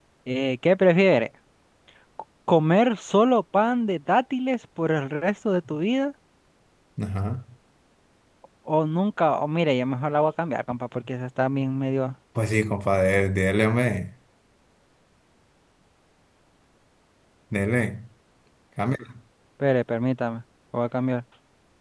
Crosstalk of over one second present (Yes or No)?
No